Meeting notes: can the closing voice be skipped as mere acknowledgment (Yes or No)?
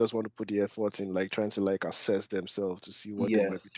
No